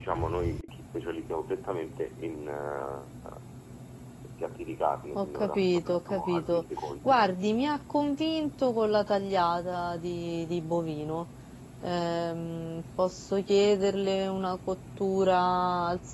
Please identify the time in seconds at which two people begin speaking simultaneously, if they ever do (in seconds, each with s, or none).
5.2 s